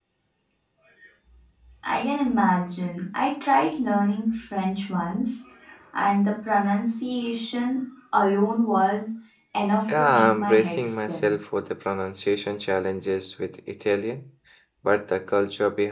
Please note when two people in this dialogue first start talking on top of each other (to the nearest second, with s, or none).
10 s